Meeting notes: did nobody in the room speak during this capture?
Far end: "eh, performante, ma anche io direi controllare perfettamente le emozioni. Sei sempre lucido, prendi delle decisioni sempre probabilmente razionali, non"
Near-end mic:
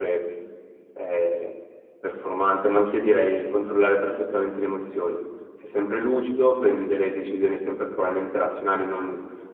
Yes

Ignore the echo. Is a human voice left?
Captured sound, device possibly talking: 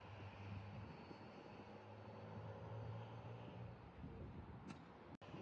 No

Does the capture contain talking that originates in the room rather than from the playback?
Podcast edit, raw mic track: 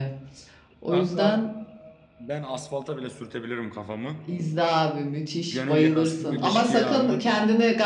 Yes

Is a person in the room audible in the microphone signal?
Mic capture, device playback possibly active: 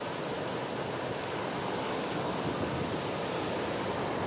No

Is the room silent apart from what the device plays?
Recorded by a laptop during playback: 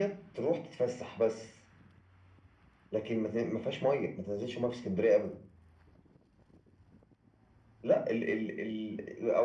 Yes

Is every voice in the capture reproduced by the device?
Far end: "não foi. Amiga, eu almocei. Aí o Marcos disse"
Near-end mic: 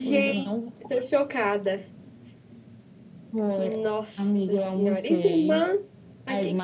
No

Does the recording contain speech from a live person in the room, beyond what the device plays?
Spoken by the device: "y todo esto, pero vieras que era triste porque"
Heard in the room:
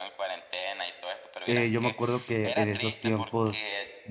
Yes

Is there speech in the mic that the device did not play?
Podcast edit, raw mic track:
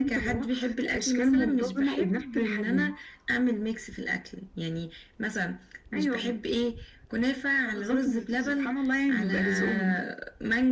No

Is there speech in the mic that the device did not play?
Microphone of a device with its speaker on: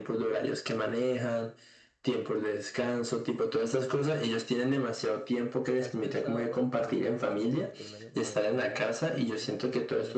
Yes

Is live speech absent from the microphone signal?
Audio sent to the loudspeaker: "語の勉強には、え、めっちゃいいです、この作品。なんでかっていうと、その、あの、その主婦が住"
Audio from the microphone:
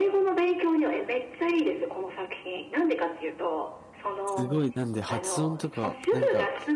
No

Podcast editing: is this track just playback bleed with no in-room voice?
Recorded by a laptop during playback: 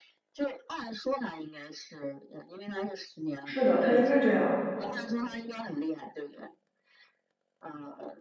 No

